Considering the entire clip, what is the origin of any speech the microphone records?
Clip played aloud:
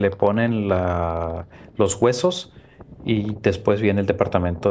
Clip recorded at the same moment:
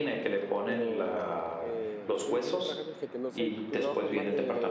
both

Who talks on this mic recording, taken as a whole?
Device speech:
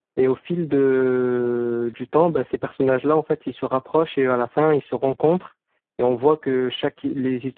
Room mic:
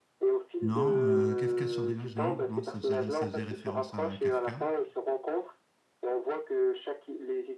both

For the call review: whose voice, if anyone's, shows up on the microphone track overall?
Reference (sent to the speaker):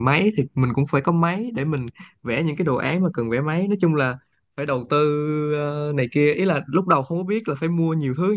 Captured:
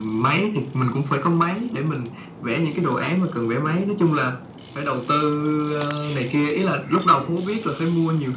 echo only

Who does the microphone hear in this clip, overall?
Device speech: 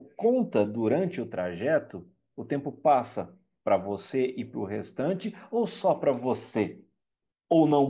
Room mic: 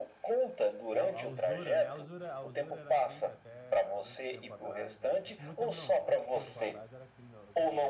both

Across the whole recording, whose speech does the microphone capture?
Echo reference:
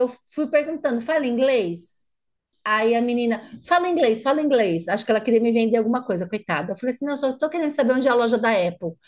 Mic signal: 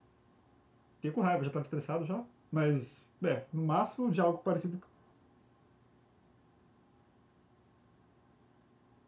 user only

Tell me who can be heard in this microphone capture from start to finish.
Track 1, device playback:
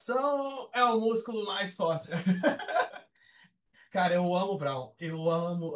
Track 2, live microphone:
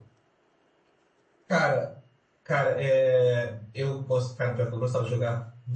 user only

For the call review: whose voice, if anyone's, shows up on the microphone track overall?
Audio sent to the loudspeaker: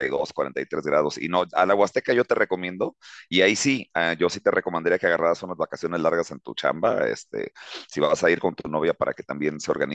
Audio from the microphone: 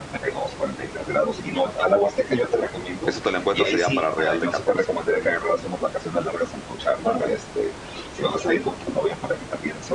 both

